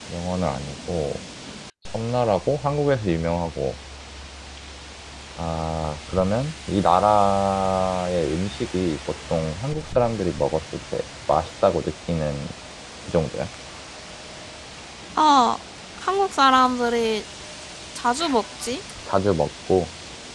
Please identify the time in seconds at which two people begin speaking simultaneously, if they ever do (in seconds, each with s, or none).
none